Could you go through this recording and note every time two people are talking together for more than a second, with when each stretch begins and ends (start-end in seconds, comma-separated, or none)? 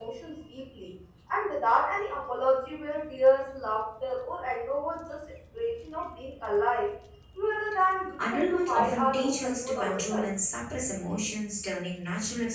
8.2-10.3